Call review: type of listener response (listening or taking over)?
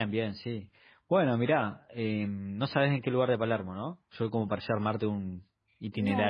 taking over